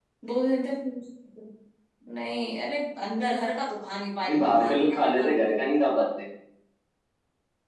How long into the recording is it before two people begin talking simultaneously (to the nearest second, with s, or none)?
4 s